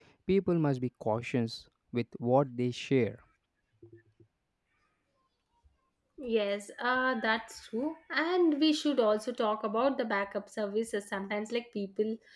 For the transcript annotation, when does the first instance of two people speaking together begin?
none

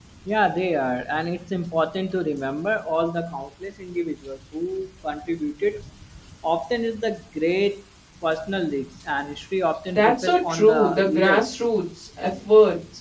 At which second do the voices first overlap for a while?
9.9 s

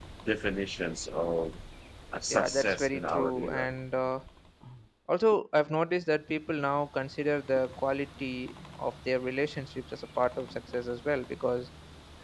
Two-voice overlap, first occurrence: 2.3 s

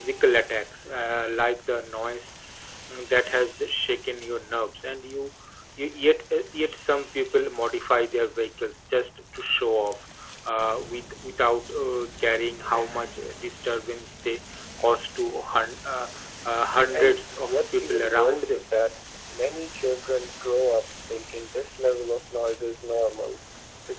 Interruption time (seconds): 16.9 s

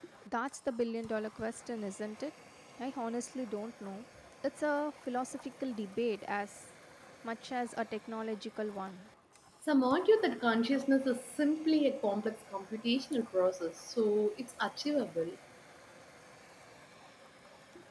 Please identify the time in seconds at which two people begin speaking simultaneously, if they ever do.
none

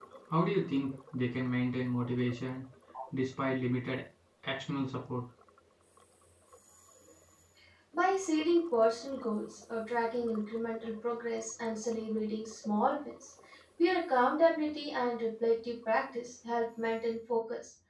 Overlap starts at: none

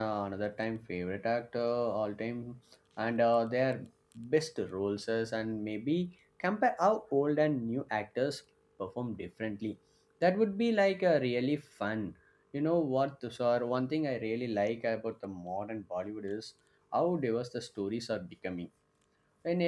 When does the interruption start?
none

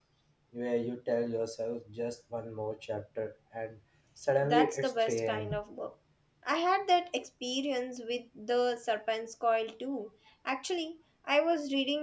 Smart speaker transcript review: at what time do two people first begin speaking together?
4.4 s

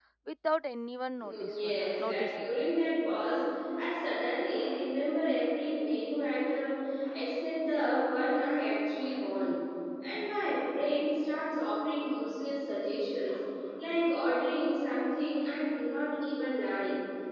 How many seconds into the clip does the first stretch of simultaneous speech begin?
1.2 s

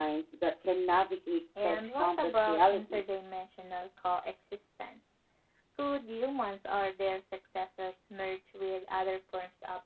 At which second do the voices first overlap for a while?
1.6 s

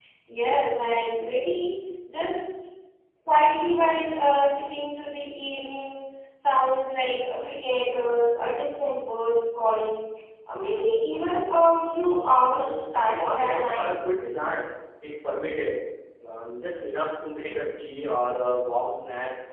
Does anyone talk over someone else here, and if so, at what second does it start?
12.5 s

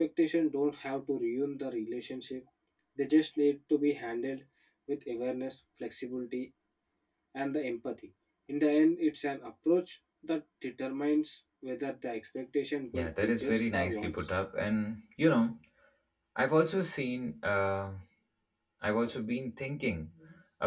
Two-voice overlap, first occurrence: 12.9 s

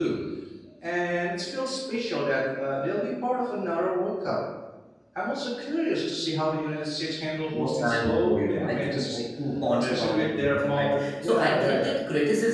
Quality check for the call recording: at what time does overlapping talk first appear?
7.5 s

